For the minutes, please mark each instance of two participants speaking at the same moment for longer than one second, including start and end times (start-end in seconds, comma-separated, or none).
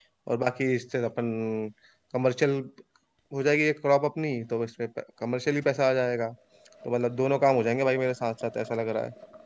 none